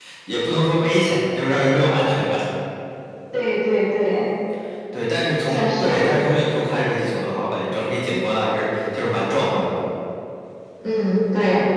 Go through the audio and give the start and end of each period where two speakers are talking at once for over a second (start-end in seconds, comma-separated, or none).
none